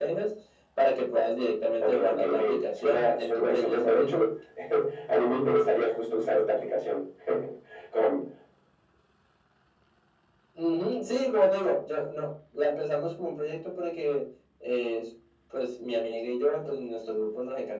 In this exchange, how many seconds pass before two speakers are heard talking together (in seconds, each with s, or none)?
1.8 s